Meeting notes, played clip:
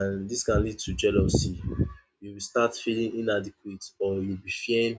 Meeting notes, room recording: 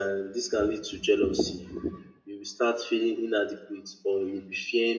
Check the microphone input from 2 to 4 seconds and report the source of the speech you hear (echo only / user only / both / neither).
echo only